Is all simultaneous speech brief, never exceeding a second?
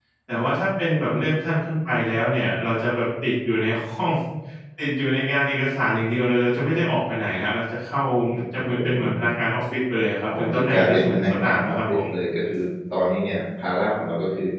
No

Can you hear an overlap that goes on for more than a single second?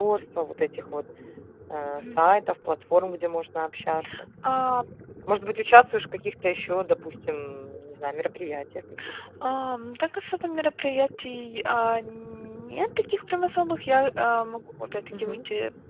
No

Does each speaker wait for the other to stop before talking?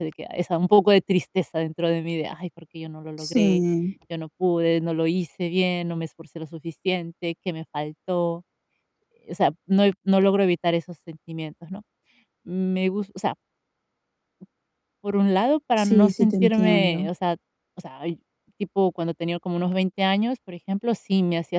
No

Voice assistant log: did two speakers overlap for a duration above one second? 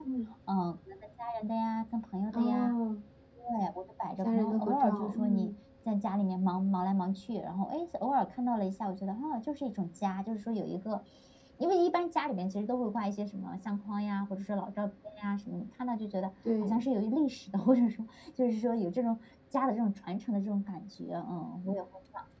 Yes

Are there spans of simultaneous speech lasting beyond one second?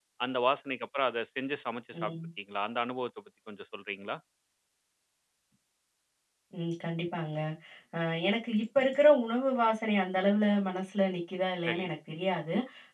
No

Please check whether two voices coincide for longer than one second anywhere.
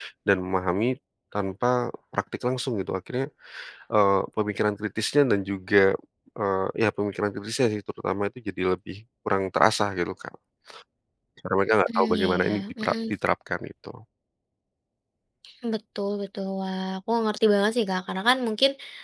Yes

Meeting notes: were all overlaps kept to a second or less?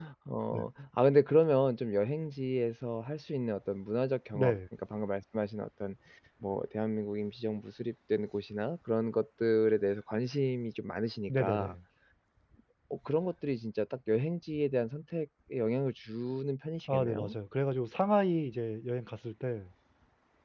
Yes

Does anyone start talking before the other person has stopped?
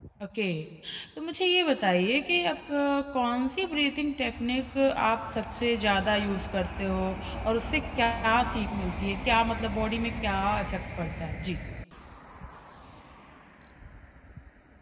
No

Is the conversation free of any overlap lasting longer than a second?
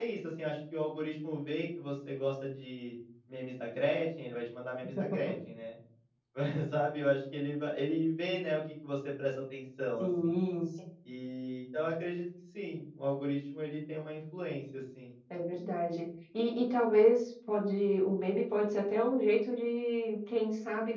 Yes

